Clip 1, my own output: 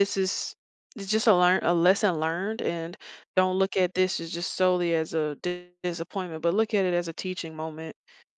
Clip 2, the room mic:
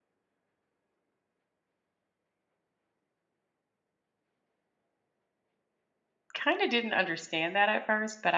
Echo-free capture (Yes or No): Yes